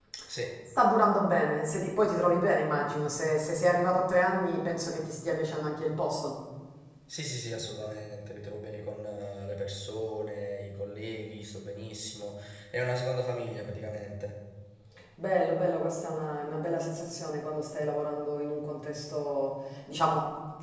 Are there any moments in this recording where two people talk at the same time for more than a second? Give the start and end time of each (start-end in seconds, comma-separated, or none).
none